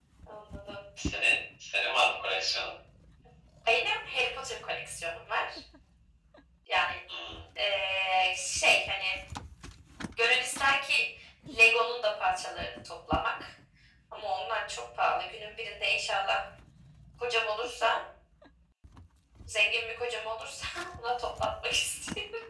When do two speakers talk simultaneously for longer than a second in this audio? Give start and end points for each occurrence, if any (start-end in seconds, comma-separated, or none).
none